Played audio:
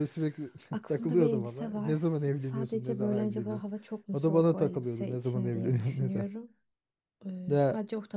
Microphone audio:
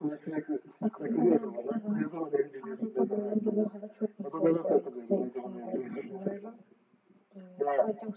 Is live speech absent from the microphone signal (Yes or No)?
Yes